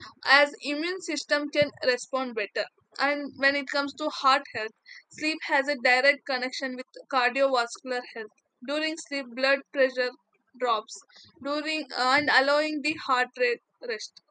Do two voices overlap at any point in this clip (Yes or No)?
No